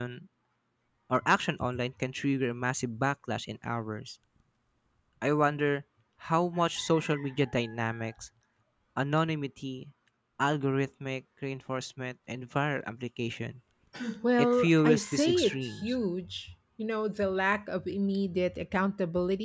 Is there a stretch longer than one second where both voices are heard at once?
Yes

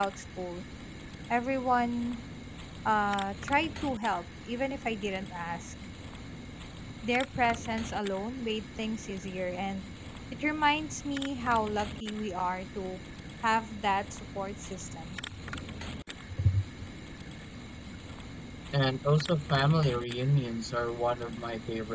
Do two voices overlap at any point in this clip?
No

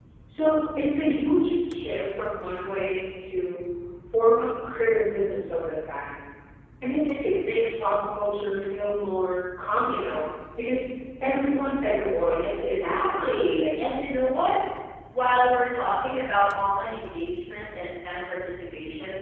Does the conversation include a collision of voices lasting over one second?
Yes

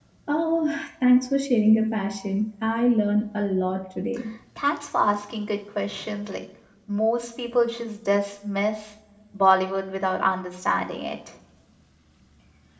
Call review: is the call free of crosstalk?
Yes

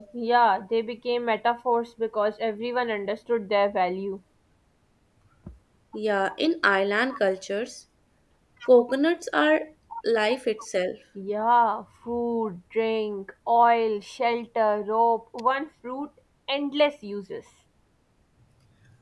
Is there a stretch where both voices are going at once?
No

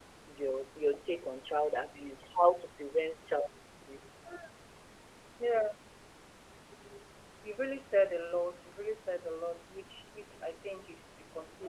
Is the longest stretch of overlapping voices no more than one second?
Yes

